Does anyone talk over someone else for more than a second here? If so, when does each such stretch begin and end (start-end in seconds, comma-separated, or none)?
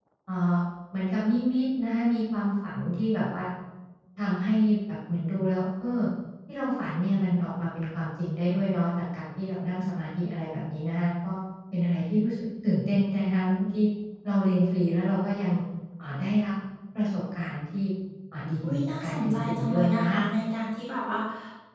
18.6-20.2